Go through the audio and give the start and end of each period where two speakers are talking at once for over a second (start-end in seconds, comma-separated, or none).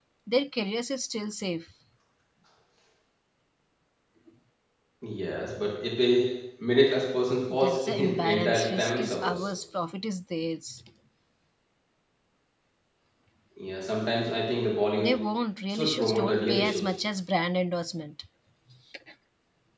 7.5-9.5, 15.7-16.9